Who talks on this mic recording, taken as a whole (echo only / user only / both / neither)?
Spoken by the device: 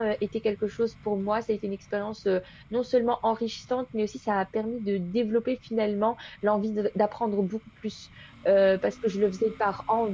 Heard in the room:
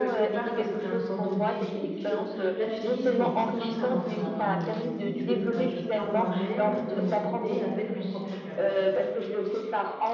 both